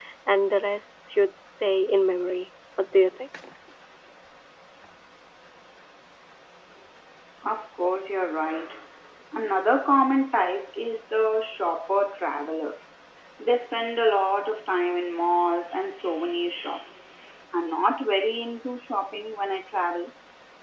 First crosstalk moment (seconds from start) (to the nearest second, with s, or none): none